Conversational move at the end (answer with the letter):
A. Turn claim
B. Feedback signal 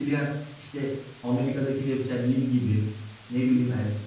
B